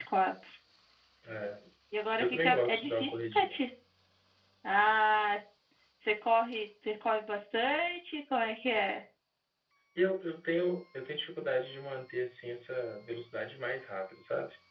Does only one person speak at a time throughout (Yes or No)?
No